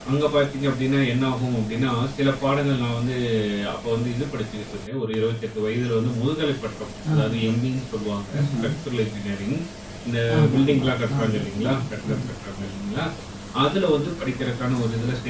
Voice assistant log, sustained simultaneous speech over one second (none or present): present